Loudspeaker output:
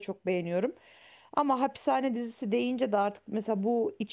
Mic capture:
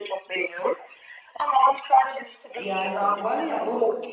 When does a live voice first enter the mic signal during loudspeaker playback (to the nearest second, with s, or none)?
3 s